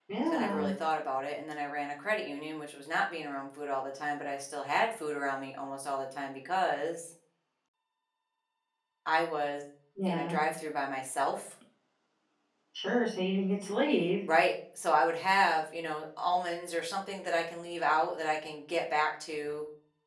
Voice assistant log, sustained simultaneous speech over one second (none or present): none